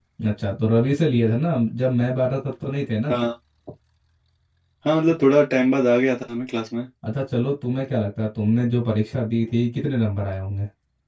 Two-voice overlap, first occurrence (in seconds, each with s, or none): none